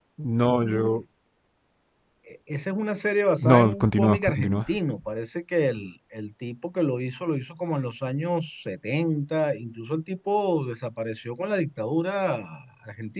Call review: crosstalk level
present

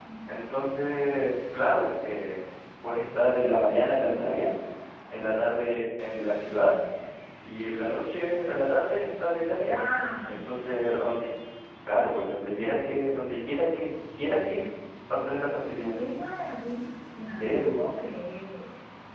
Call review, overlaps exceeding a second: none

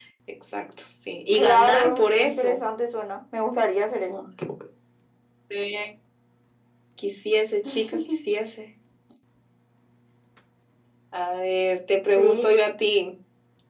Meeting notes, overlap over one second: present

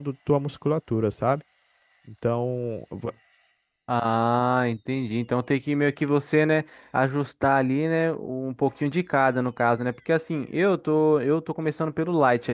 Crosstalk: none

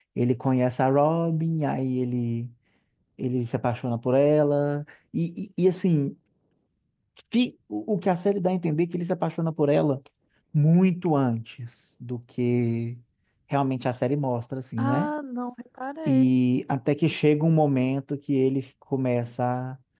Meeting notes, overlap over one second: none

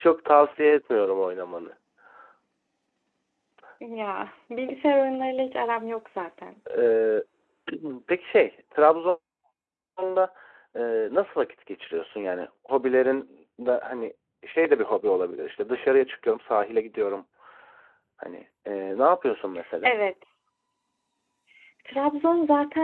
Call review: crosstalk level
none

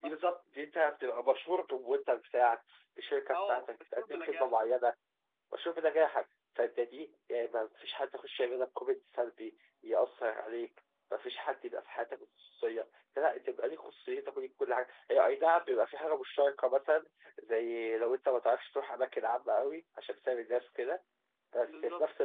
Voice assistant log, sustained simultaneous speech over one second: present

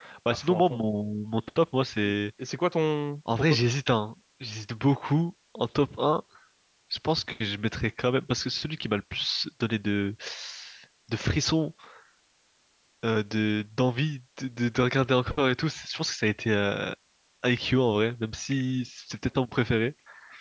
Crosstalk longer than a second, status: none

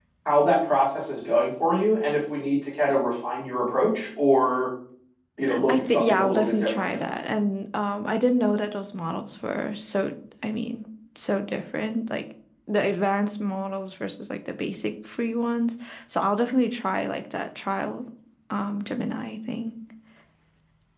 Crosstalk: present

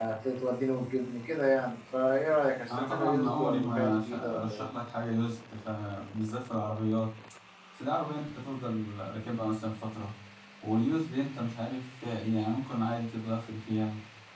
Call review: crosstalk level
present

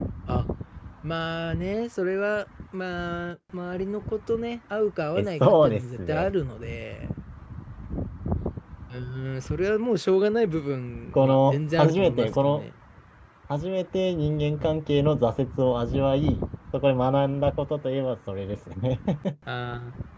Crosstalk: present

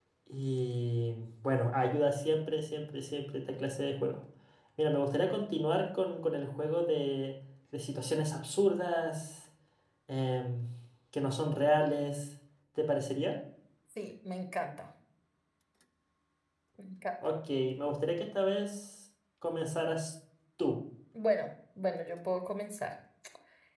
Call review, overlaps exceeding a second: none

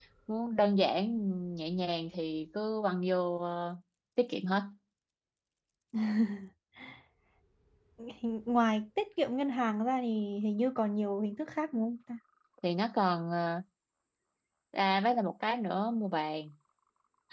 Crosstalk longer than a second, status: none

